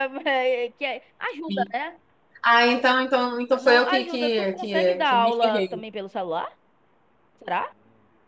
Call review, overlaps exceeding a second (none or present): present